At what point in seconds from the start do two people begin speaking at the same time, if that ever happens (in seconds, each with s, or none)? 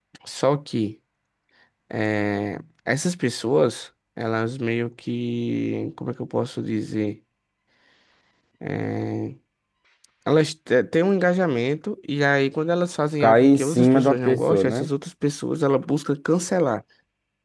13.2 s